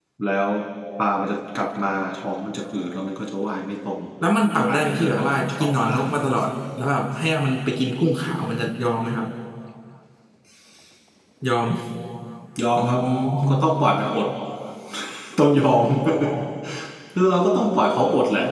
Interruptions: present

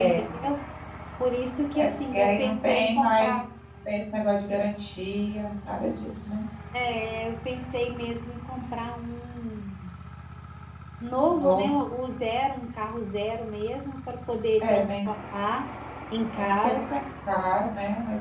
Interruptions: present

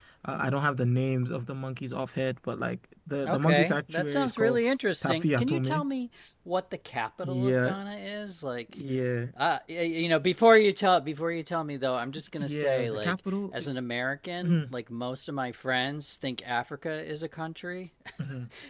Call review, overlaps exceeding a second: present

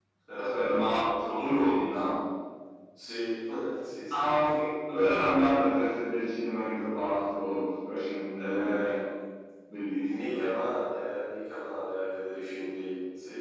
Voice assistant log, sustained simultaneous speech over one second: present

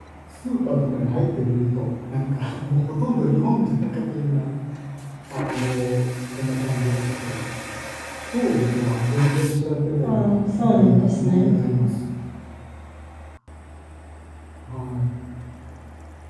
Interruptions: present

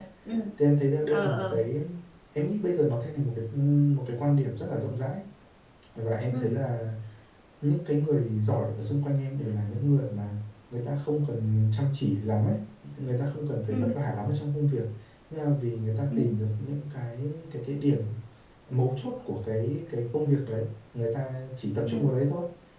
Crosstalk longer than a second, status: none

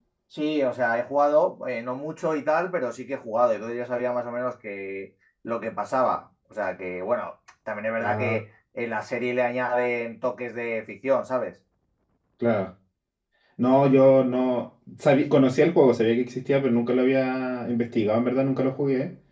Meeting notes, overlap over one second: none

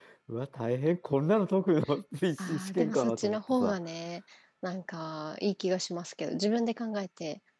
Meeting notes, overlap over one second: present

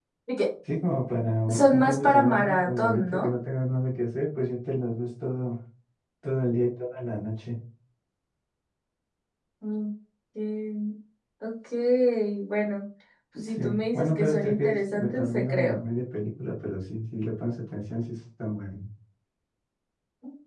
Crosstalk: present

